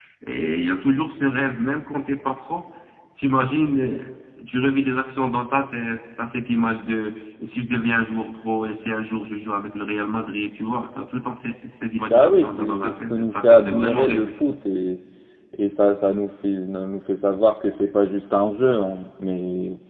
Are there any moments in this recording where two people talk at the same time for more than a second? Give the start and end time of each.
12.1-14.3

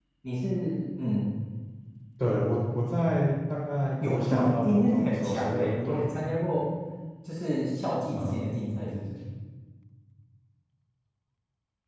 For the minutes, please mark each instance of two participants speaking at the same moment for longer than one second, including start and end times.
4.0-6.0

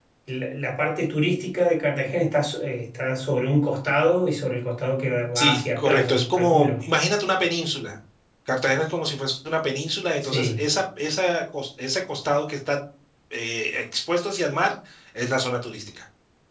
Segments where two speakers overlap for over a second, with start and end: 5.4-6.8

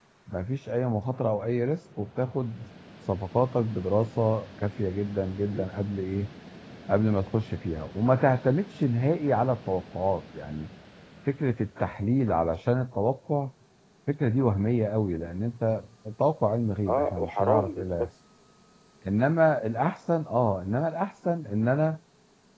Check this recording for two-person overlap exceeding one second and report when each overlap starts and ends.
16.9-18.1

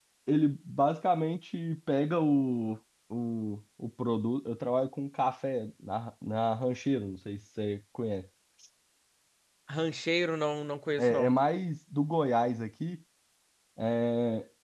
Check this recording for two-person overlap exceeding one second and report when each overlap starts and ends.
none

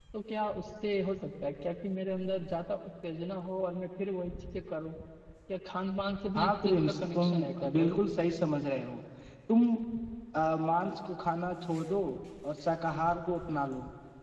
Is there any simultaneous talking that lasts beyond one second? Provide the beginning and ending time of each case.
6.3-8.0

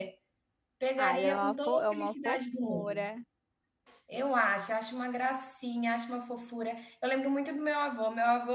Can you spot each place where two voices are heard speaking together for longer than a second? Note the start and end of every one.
1.0-3.1

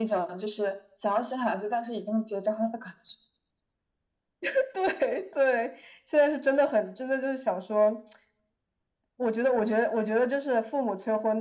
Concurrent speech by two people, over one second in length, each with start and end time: none

